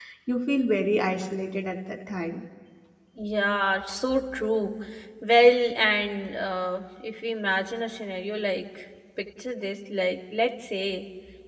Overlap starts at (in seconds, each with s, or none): none